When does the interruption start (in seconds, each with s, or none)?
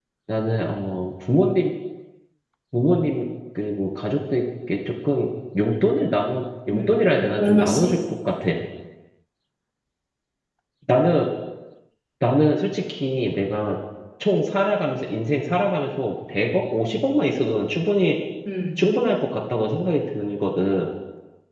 6.7 s